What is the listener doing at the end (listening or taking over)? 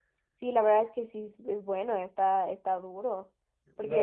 taking over